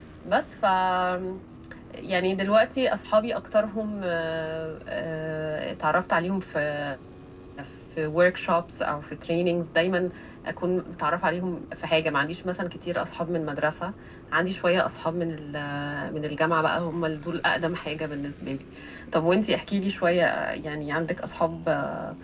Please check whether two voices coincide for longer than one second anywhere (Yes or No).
No